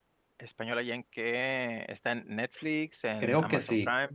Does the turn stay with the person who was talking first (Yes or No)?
No